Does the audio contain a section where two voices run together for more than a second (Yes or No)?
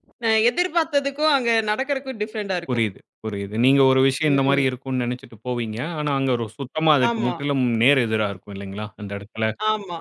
No